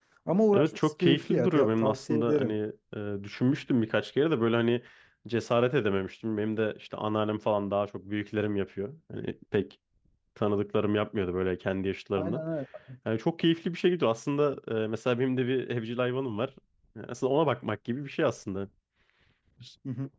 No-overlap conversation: No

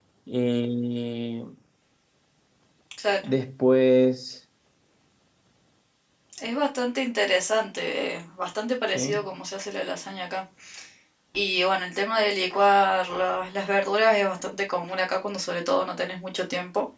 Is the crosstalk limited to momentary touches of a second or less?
Yes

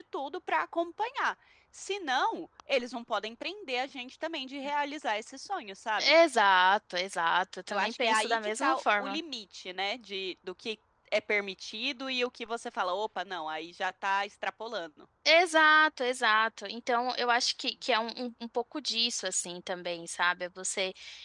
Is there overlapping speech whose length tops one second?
Yes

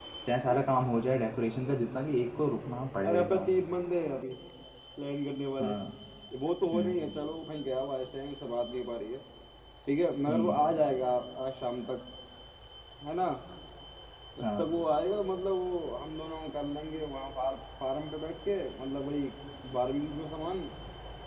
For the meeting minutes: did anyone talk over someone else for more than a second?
No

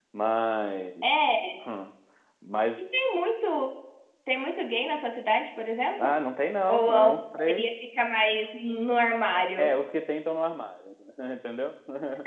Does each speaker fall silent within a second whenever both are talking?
Yes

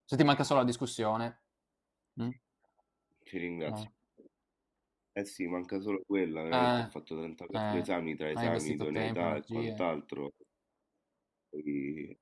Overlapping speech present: Yes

